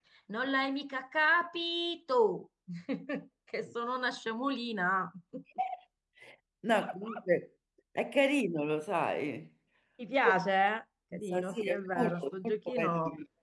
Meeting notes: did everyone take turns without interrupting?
No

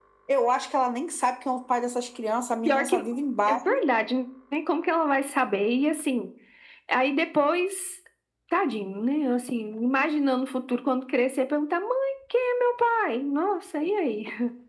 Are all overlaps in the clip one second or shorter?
Yes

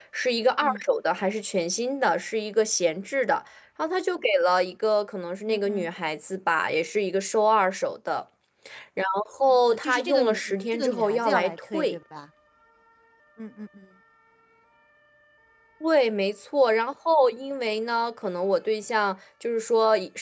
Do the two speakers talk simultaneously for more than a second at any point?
Yes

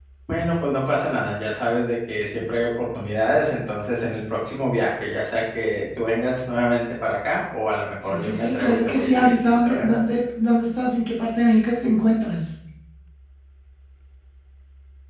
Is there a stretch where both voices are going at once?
Yes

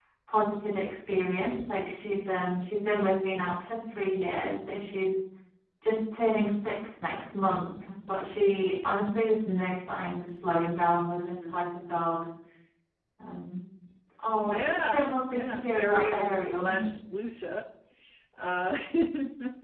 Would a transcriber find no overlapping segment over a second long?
No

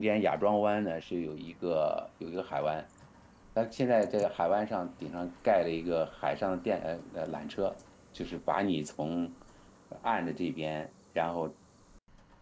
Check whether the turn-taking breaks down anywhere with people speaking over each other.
No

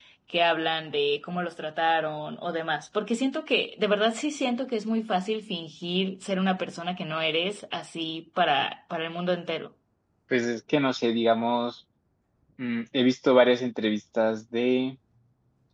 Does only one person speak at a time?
Yes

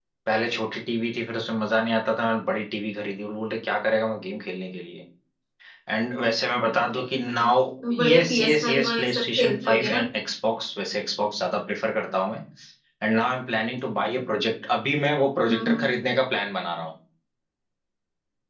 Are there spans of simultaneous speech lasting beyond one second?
Yes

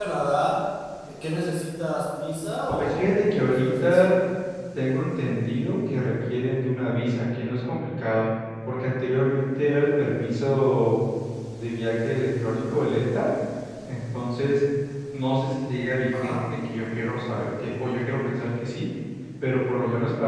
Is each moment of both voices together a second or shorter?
No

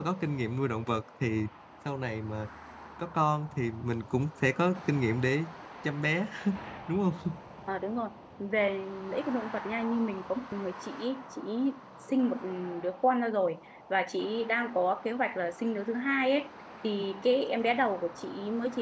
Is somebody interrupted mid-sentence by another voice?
No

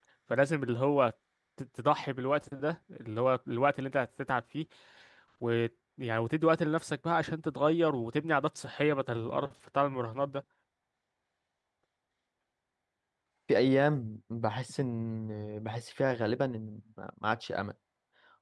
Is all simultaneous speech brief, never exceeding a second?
Yes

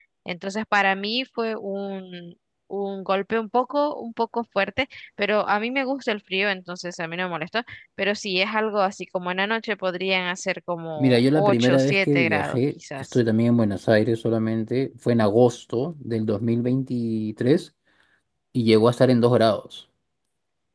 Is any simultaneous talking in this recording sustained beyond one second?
Yes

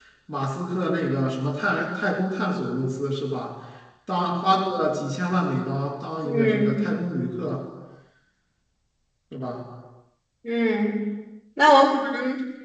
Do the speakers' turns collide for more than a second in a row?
No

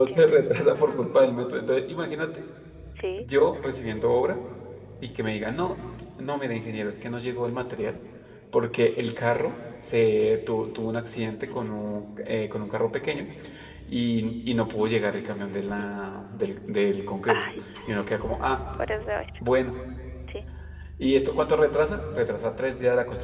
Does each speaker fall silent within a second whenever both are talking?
Yes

